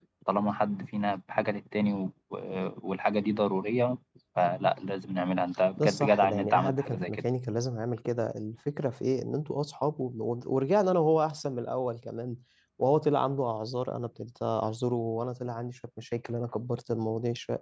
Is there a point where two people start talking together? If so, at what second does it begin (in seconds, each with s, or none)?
5.8 s